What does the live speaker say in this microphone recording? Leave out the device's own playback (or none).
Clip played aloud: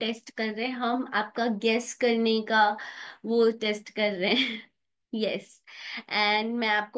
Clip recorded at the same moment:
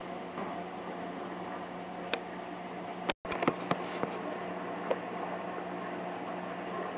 none